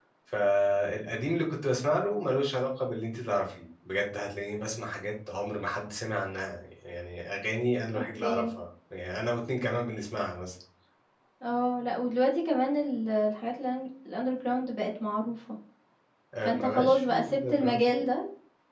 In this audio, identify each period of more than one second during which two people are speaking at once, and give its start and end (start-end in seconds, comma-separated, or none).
16.4-17.8